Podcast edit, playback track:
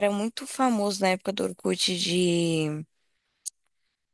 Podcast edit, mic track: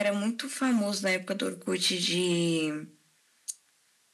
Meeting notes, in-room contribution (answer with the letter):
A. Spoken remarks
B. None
B